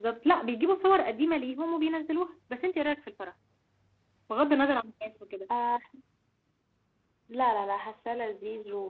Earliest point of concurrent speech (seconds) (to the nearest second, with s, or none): none